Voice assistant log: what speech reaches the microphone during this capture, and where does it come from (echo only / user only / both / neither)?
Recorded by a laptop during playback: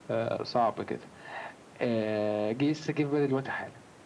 echo only